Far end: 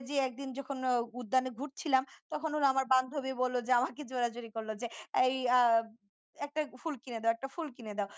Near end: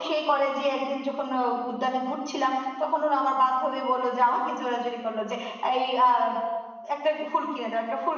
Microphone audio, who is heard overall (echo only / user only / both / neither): echo only